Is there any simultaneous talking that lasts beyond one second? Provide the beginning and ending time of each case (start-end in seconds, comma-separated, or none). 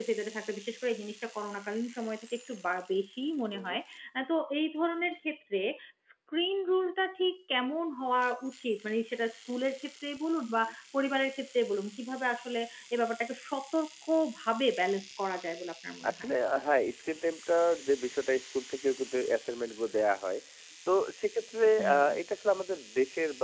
none